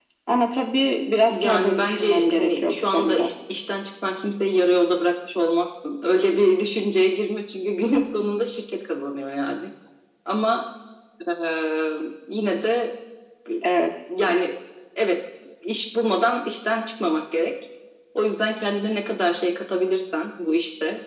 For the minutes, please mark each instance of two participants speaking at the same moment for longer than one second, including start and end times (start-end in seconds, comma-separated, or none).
1.3-3.3